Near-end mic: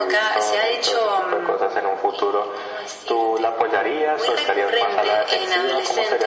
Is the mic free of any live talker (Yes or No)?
Yes